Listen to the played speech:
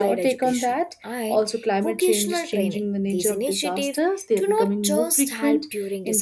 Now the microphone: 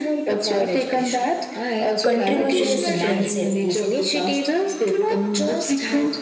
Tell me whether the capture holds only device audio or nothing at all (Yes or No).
No